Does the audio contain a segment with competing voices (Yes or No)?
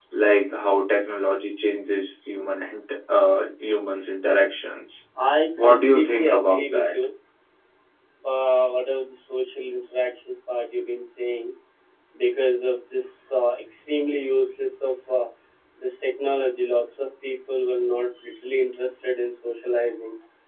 Yes